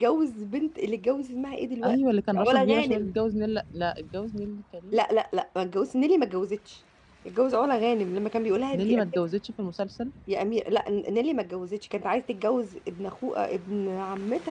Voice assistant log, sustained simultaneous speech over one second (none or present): present